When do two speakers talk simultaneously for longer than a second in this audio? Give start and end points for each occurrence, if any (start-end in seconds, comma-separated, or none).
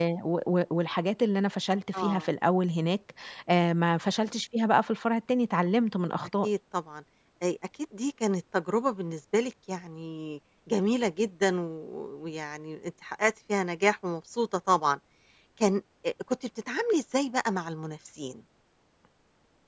none